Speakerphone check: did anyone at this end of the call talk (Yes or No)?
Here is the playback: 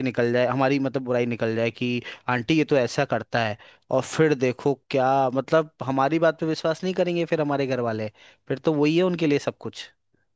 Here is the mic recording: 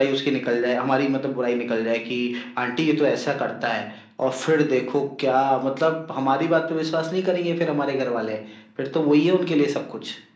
No